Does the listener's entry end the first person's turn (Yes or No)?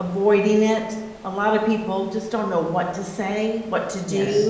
No